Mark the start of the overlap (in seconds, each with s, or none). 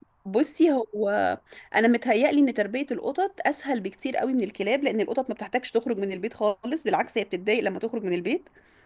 none